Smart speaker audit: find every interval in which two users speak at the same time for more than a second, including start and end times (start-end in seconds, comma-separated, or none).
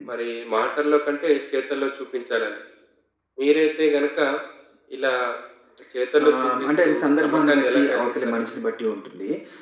6.3-8.5